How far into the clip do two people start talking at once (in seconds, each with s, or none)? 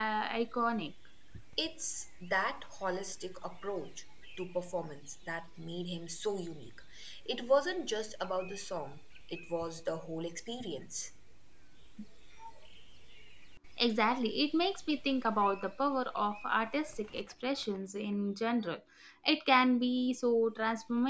none